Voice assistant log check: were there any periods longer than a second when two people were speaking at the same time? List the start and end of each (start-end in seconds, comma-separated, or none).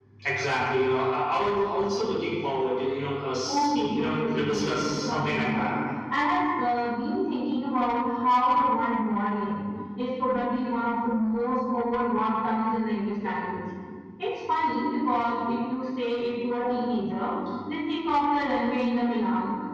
3.5-5.7